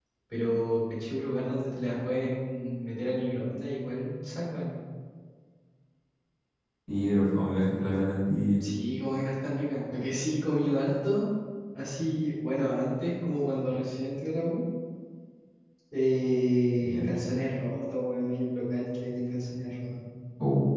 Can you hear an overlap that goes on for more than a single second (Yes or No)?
No